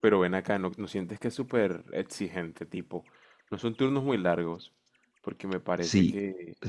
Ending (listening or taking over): taking over